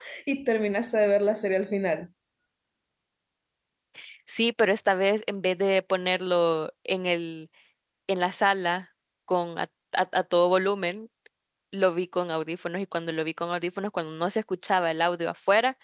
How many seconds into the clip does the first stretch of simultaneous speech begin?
none

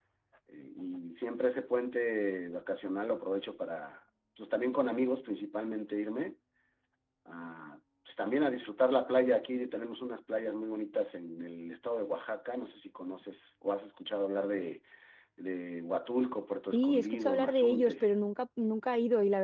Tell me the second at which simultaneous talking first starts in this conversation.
16.7 s

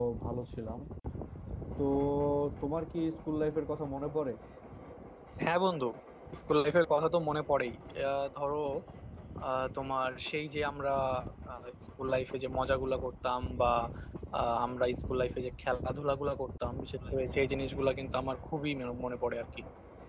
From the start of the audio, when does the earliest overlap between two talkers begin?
none

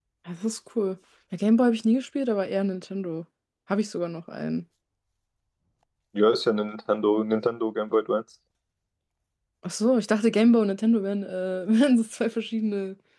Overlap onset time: none

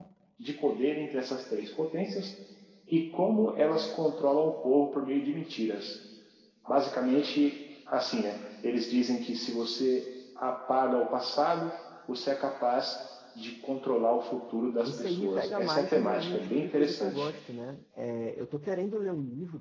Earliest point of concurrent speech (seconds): 14.8 s

